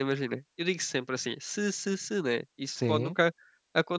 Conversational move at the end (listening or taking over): listening